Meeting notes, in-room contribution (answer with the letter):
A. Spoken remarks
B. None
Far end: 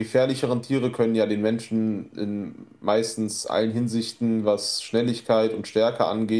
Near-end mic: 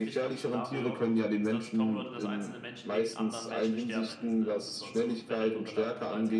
A